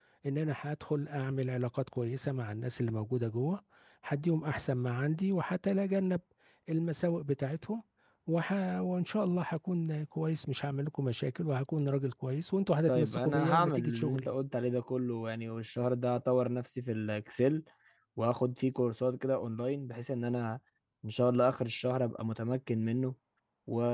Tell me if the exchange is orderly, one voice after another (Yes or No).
No